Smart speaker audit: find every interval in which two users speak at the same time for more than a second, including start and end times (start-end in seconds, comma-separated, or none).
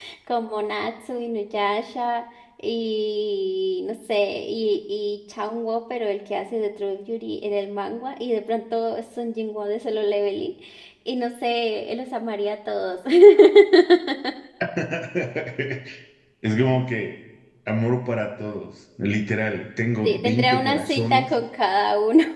20.0-21.3